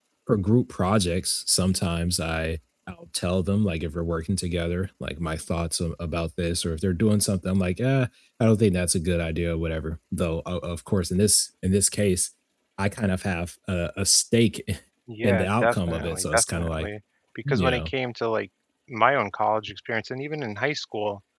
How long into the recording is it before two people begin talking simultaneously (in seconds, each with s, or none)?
15.2 s